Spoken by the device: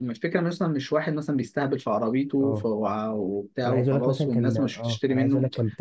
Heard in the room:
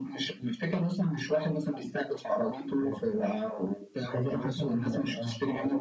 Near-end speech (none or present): none